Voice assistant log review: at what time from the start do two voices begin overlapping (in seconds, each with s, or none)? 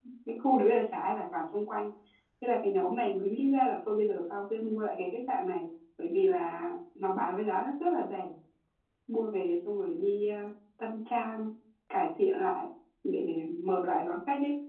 none